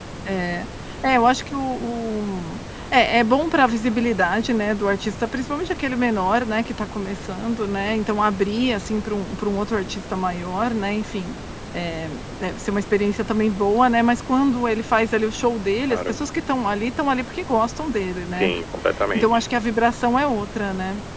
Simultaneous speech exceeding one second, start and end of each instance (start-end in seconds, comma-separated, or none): none